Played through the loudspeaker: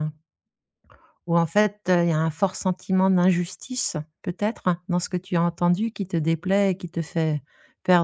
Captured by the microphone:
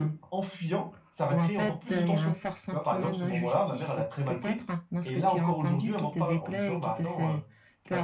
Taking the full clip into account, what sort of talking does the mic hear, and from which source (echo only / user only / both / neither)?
both